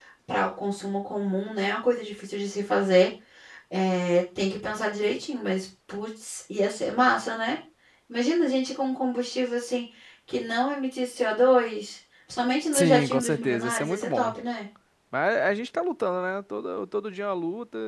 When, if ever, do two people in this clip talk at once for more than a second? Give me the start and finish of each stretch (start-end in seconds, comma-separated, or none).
12.7-14.3